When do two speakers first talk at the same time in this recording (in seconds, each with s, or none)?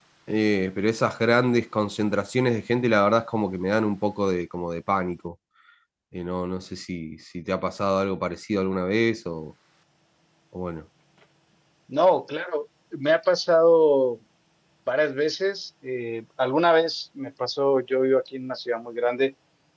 none